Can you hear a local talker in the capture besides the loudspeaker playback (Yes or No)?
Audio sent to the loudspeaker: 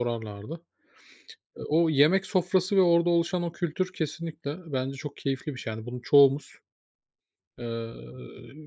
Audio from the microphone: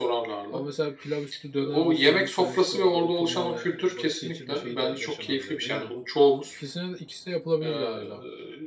Yes